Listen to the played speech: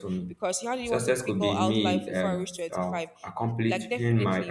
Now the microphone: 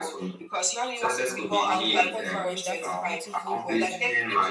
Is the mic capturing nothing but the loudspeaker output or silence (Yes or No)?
No